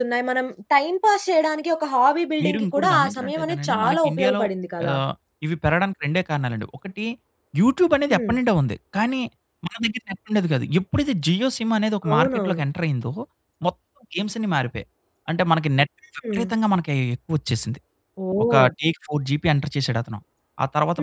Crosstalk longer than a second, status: present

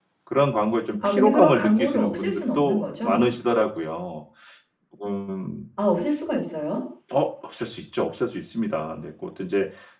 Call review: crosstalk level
present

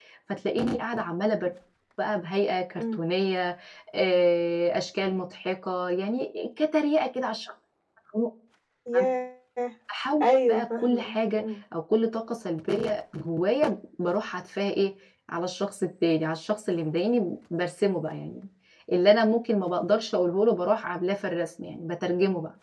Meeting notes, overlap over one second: present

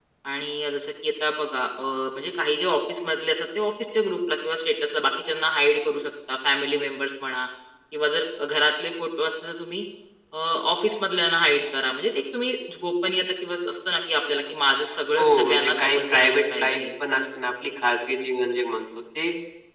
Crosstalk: present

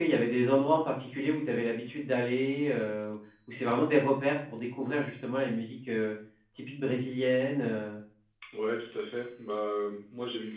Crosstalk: none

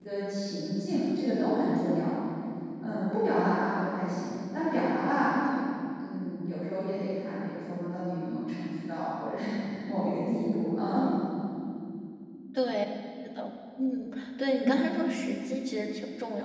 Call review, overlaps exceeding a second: none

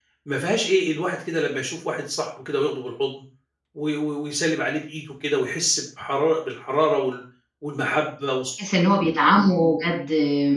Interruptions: none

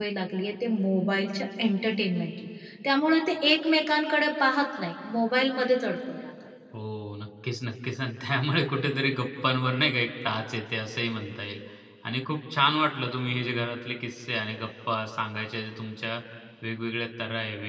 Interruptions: none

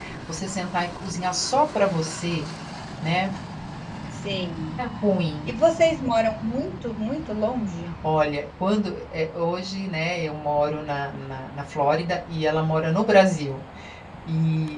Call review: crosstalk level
none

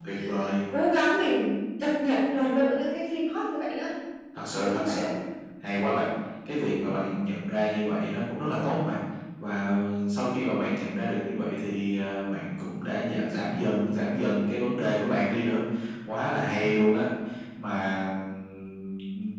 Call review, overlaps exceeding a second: none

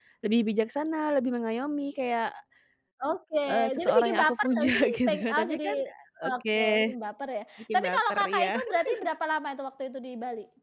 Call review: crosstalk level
present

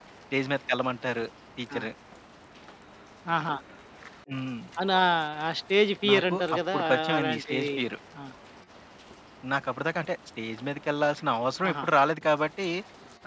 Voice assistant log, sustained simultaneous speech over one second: present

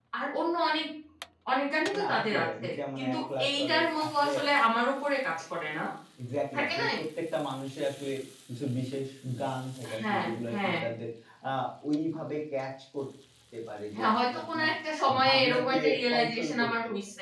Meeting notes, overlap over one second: present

